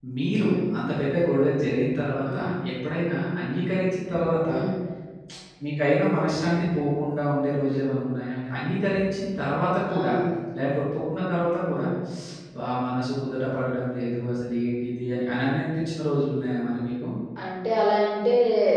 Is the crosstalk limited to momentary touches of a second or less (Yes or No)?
Yes